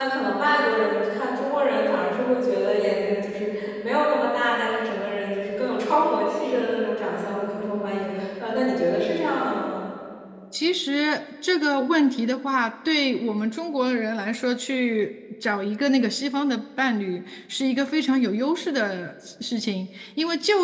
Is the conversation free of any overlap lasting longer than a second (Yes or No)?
Yes